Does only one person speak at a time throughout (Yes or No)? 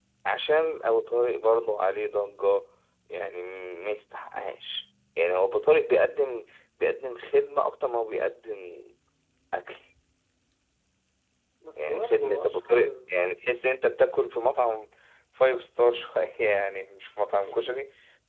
No